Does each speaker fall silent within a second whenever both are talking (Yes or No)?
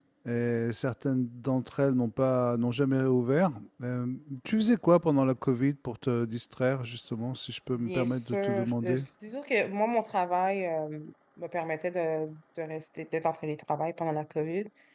No